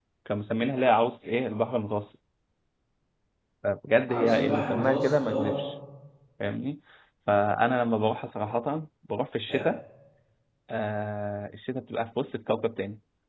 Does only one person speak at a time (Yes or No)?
No